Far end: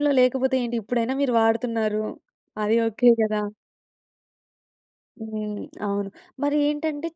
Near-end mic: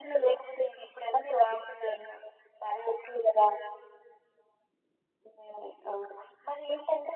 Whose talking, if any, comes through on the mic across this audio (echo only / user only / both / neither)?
echo only